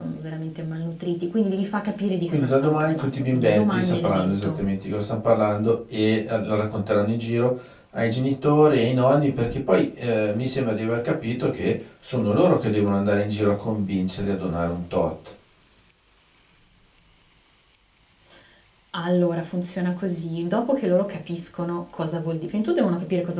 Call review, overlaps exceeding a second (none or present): present